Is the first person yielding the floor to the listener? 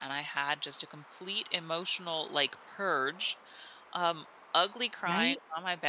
No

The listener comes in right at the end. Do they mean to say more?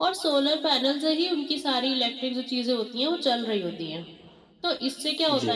No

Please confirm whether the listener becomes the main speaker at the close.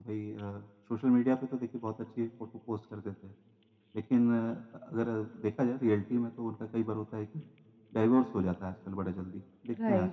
No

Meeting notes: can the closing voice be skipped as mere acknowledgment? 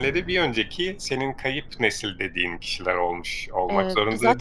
No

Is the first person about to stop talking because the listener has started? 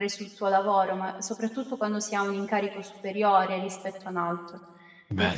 No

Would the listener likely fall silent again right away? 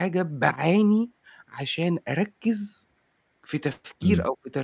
Yes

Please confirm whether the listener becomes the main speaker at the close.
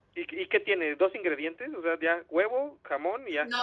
Yes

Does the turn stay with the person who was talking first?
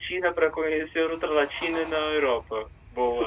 No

